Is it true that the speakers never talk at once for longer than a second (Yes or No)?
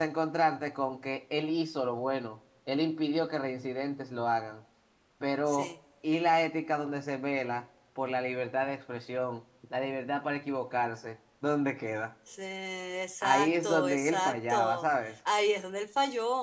No